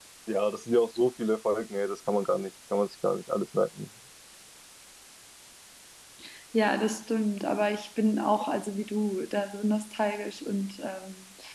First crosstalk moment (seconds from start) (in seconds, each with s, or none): none